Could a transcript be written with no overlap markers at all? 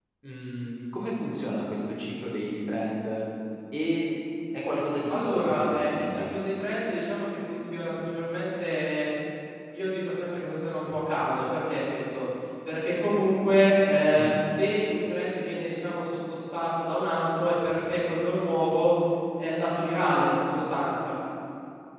No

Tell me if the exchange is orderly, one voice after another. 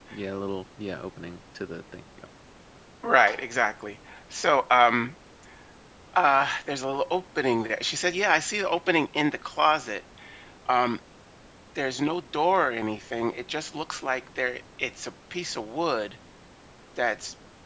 Yes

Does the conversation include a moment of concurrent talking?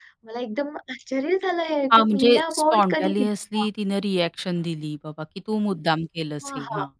Yes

